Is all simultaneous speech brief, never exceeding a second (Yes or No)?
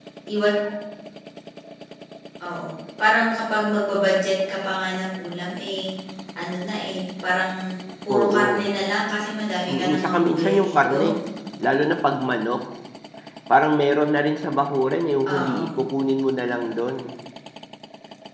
No